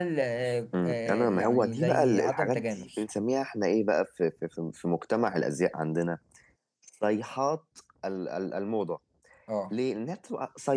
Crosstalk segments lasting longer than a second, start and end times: 0.7-3.0

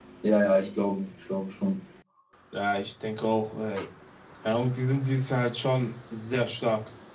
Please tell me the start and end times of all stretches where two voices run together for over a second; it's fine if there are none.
none

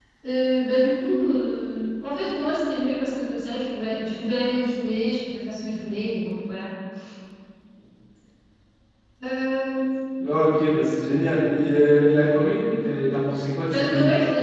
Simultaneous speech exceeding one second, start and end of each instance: none

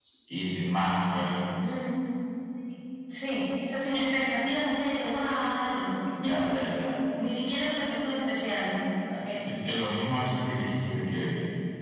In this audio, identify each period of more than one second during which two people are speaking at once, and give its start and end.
none

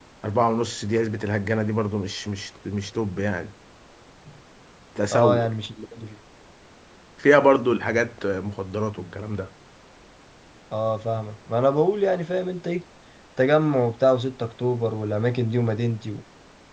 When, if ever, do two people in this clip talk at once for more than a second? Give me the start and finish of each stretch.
none

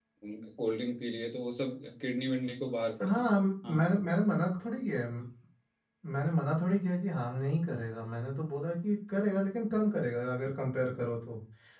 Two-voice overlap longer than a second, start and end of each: none

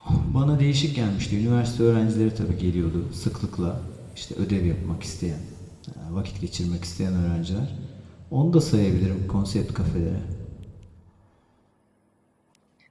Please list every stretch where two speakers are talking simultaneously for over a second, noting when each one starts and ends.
none

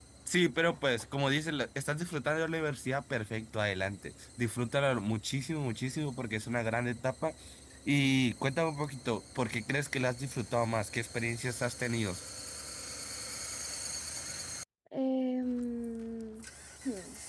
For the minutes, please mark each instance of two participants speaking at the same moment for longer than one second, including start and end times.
none

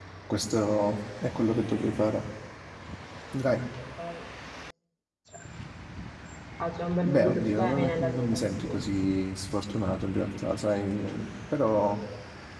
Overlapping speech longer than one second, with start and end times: 7.0-8.8

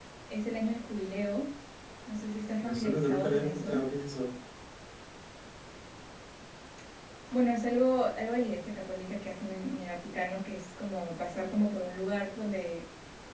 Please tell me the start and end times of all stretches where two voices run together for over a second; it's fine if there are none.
2.6-3.8

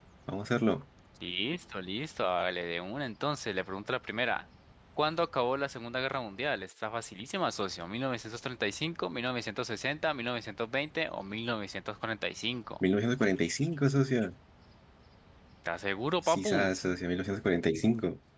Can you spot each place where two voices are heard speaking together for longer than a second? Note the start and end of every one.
none

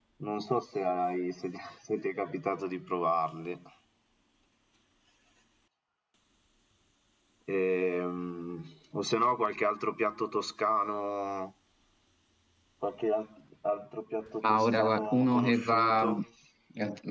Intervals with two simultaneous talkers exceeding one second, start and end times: 14.4-16.1

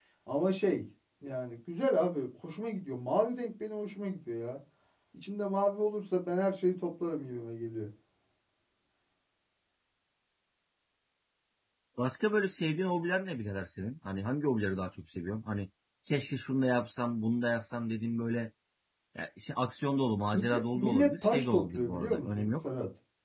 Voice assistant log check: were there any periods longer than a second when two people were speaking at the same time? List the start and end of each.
20.3-22.7

